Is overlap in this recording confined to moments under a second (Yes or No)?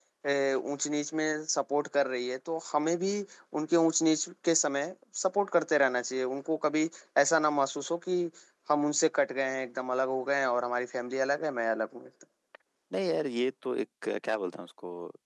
Yes